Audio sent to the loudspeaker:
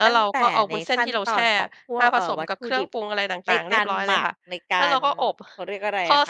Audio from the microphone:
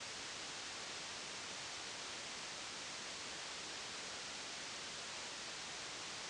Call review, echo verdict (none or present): none